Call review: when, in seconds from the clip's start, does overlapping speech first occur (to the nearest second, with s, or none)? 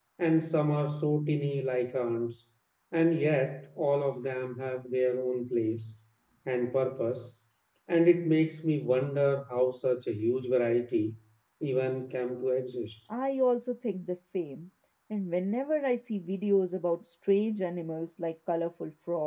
none